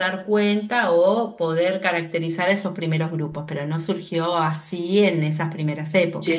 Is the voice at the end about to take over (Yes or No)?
Yes